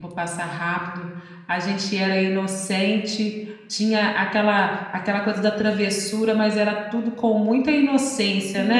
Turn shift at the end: Yes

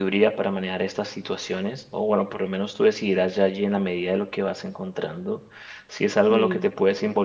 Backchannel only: Yes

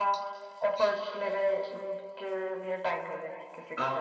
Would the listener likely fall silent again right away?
No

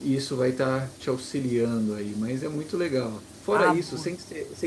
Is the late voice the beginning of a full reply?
No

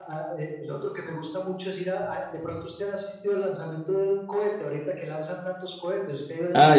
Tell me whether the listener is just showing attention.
No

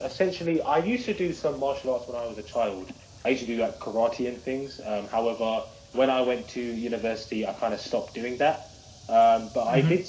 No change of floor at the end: Yes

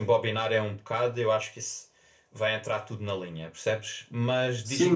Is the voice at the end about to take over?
Yes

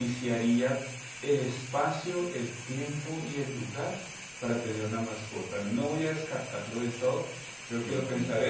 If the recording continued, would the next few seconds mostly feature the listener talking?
No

